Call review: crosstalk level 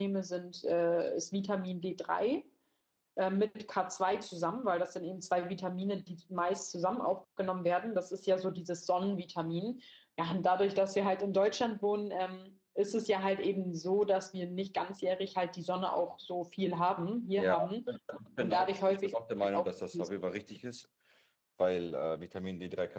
present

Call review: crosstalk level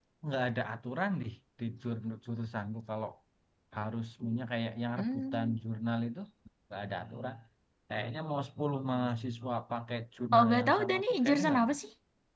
present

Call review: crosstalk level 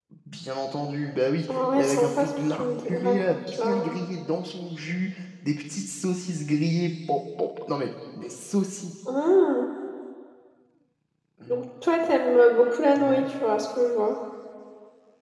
present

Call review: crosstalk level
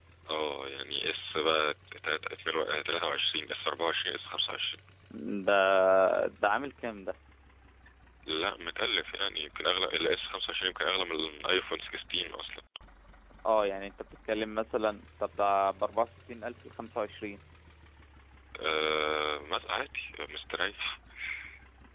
none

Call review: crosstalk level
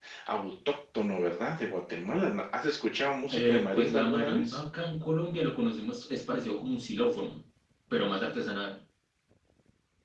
present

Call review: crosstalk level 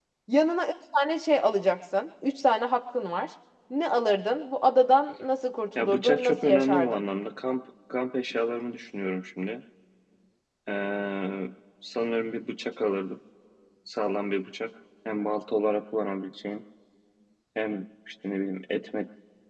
present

